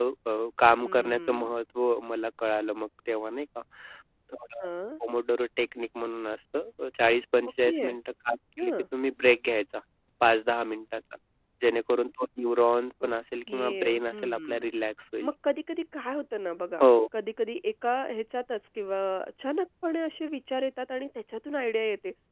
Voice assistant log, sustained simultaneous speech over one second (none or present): present